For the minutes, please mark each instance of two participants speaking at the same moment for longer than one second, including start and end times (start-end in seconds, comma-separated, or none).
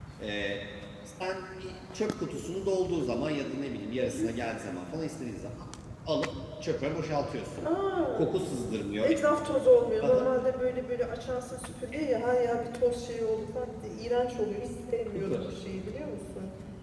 none